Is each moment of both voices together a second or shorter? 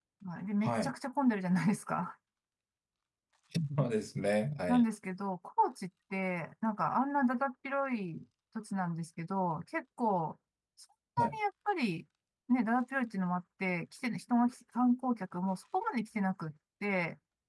Yes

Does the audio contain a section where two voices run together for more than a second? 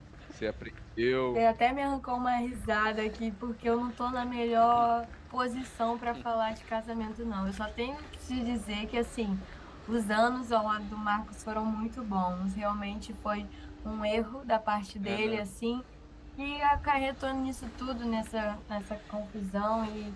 No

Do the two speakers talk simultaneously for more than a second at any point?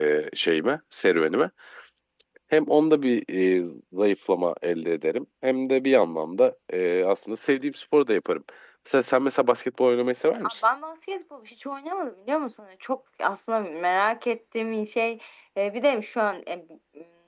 No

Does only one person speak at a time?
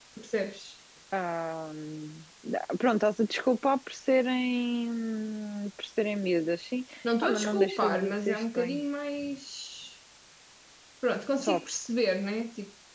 No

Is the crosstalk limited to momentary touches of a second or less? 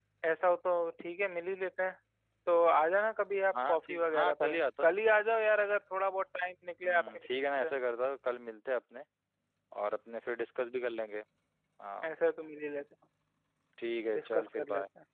No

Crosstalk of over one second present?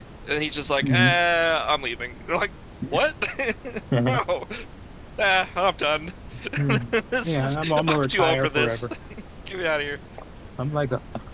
Yes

